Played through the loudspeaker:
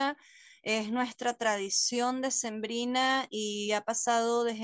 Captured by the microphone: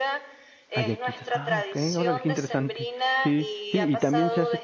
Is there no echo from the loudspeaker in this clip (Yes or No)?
No